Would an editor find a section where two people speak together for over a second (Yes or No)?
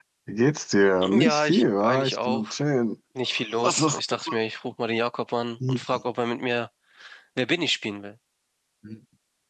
Yes